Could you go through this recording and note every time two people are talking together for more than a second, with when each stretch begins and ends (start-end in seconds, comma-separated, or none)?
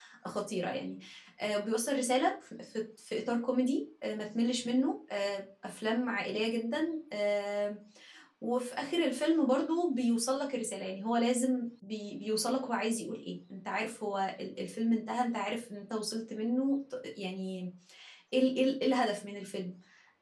none